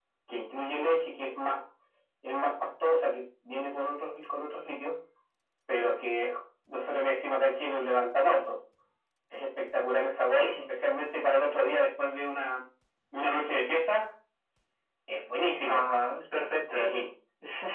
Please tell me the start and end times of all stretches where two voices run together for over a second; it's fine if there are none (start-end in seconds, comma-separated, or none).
none